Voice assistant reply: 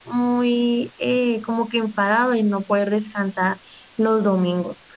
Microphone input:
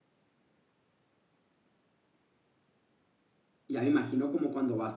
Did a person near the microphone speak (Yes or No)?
Yes